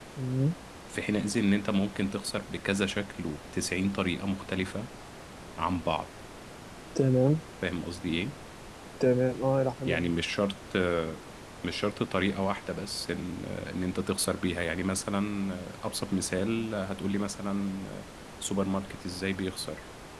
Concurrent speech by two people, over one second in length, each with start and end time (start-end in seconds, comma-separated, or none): none